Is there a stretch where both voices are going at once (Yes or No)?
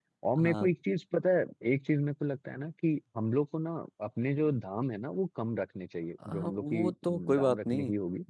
Yes